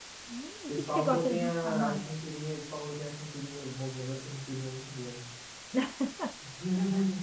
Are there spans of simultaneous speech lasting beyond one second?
Yes, from 0.7 s

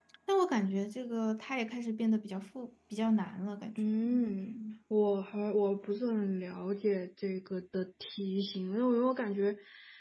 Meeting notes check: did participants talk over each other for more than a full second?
No

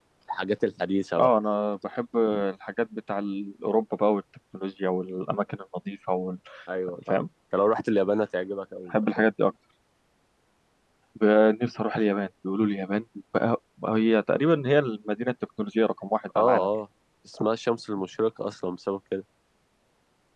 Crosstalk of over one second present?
No

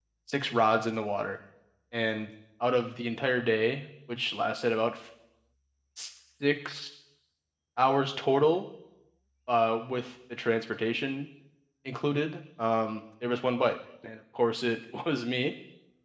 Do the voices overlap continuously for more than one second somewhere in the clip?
No

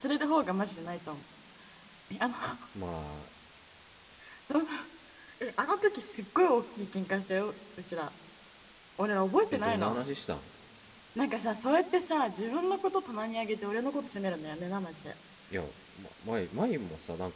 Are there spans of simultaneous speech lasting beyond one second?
No

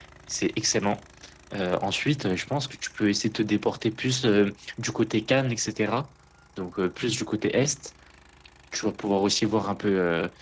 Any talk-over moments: No

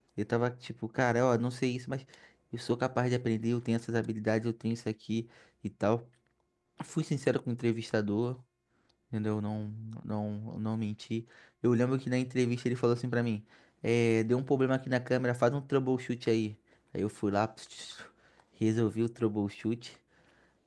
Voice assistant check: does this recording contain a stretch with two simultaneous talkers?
No

